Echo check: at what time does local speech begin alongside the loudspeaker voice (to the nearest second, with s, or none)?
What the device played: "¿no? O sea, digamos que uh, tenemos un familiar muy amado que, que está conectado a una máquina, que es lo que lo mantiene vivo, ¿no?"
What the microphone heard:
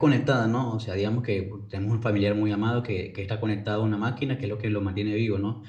none